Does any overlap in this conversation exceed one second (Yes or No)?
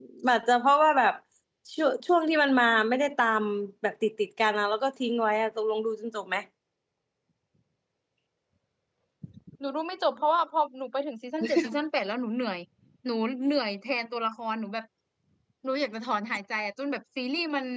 No